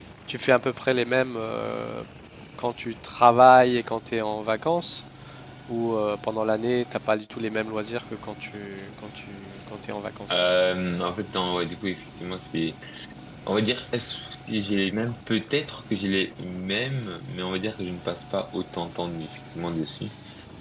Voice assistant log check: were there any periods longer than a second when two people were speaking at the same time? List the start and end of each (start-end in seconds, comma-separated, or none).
none